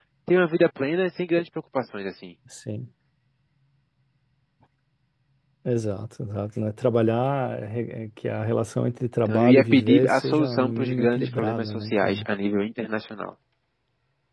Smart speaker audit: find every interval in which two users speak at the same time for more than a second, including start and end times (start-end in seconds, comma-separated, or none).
9.2-12.3